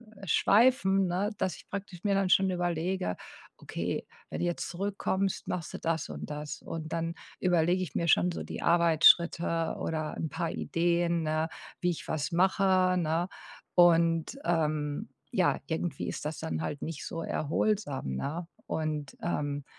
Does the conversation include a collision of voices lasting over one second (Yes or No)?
No